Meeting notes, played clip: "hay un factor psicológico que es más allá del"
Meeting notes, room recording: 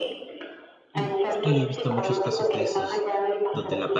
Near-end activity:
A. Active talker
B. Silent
A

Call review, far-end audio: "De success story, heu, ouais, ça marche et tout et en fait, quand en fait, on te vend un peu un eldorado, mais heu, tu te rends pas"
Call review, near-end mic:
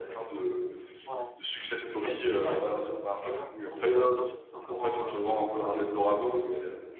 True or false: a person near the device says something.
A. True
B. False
A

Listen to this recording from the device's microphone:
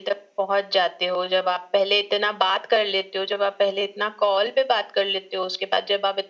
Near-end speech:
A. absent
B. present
A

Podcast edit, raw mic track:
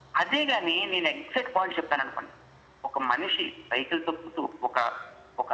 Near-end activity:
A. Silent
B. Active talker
A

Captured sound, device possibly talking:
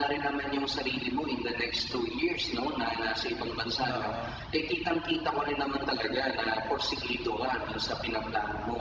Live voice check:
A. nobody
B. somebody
B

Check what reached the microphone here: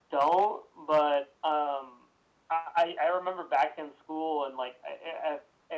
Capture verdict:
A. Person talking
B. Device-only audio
B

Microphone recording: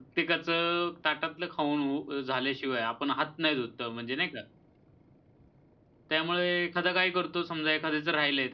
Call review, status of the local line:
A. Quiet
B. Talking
B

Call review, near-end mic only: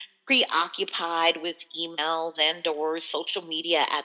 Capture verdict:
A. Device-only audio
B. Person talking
A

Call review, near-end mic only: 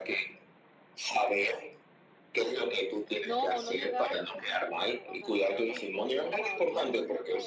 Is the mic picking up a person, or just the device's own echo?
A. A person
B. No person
A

